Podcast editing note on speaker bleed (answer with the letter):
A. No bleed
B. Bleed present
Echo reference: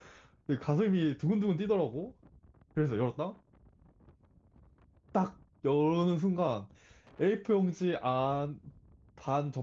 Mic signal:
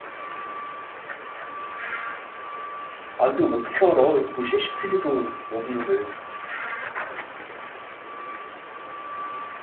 A